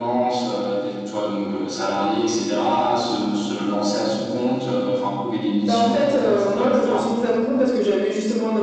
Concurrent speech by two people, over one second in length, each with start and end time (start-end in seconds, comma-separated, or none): 5.6-7.0